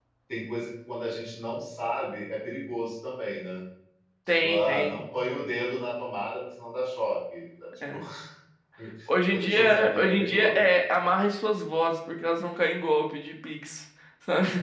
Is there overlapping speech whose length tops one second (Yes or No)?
Yes